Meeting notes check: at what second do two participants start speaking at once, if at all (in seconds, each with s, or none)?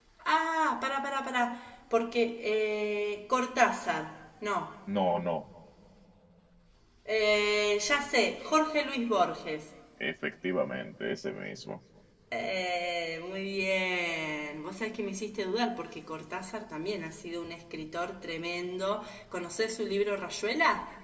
none